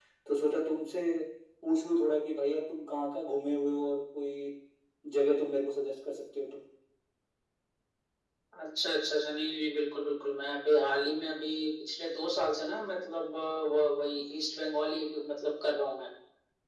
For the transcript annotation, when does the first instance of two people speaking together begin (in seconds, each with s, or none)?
none